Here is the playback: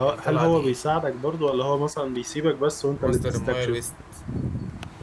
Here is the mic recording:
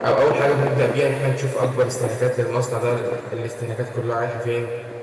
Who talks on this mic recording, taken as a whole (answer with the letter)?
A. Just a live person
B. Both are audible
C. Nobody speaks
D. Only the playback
A